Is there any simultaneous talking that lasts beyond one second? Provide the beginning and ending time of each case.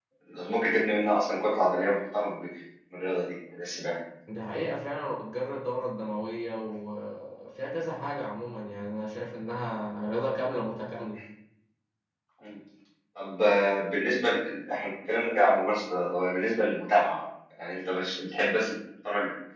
none

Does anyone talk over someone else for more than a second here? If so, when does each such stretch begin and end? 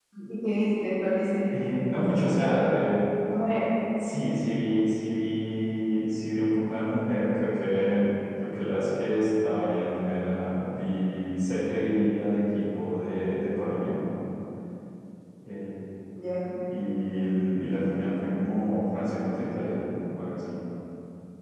none

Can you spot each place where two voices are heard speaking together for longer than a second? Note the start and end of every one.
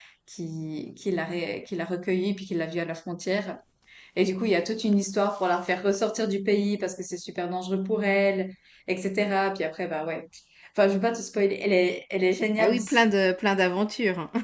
none

